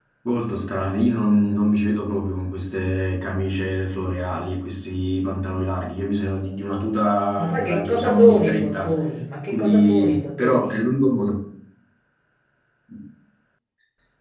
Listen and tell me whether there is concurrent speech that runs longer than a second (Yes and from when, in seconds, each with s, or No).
Yes, from 7.4 s